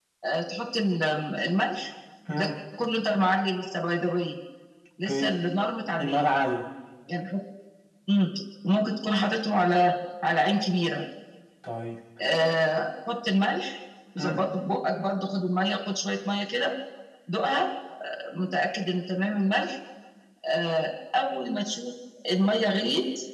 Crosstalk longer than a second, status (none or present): none